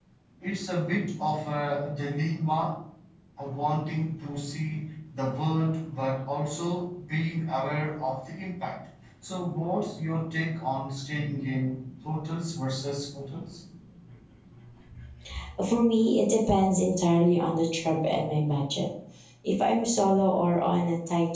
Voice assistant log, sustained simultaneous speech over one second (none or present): none